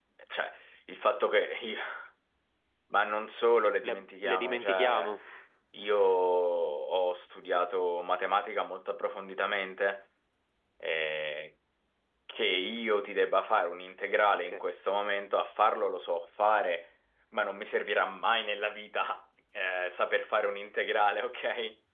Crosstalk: present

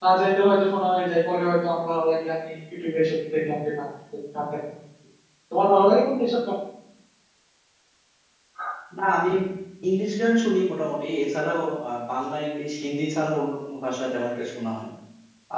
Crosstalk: none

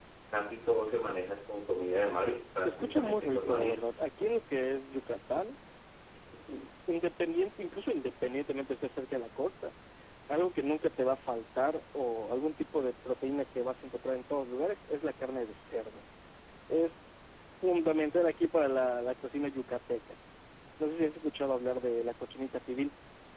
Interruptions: present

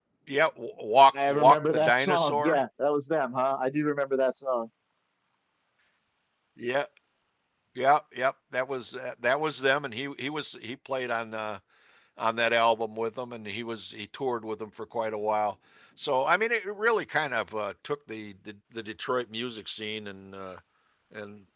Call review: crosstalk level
present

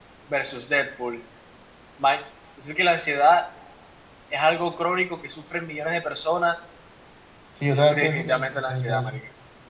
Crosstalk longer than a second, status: present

